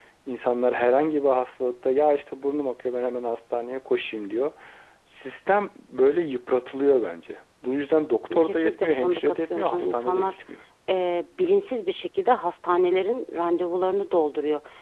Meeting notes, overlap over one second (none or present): present